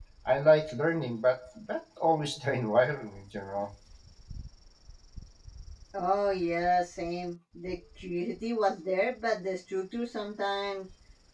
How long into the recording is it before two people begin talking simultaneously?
none

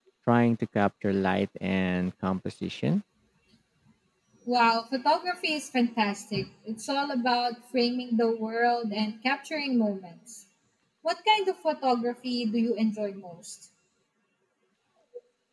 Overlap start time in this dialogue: none

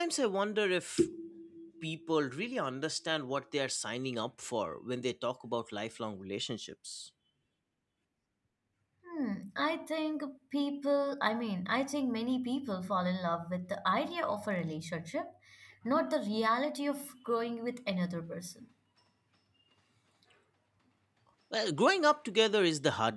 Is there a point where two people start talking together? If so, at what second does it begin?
none

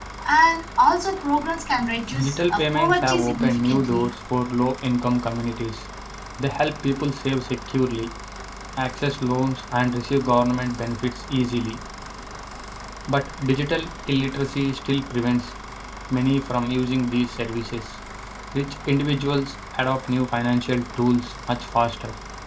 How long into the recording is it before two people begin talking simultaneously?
2.1 s

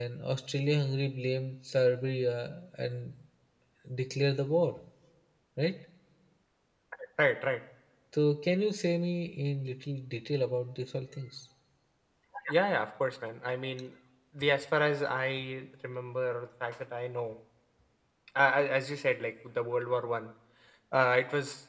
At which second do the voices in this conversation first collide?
none

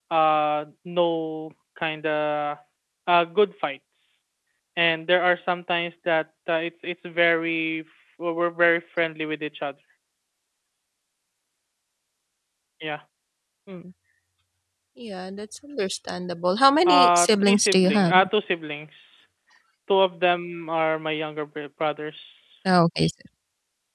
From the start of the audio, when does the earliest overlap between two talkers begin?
16.9 s

